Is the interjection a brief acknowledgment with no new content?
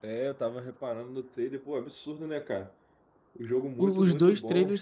No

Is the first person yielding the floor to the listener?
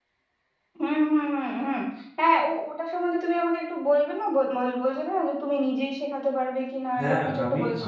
Yes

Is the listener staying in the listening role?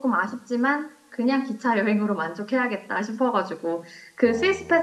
Yes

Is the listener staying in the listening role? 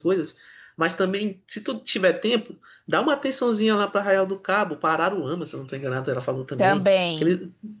Yes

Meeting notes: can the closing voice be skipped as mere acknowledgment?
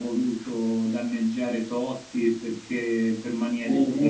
No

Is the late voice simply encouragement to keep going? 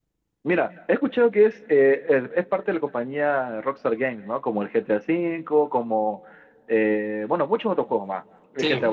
Yes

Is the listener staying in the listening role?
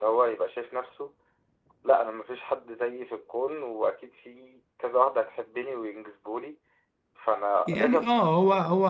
No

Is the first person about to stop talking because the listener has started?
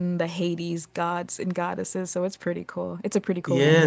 Yes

